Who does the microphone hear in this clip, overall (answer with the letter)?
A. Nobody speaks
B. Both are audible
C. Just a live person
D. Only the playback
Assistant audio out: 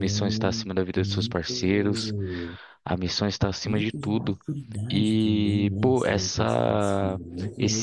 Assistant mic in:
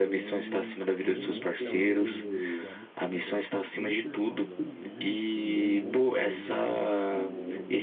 B